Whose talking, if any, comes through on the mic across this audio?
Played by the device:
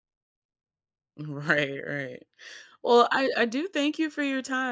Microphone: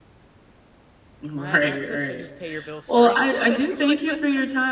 both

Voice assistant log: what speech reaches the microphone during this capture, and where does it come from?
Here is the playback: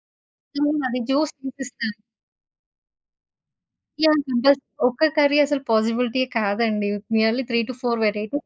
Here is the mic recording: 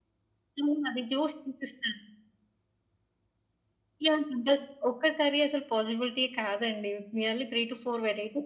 echo only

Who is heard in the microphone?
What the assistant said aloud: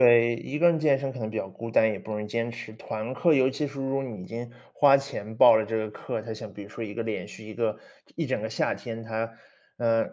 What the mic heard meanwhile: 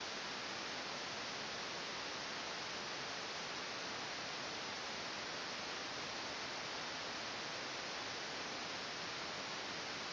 neither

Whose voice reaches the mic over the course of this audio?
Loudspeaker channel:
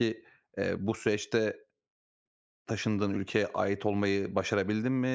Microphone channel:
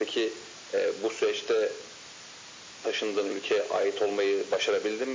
echo only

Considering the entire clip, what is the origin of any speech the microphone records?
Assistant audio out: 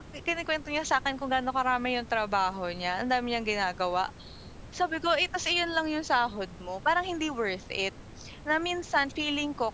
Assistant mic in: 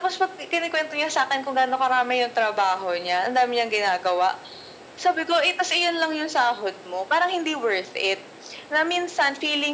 echo only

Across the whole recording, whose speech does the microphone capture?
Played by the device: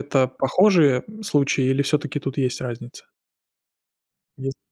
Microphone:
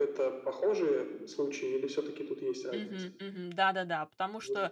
both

